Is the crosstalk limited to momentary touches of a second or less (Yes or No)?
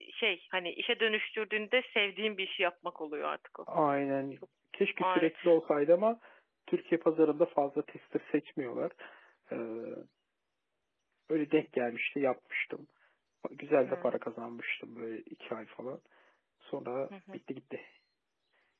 Yes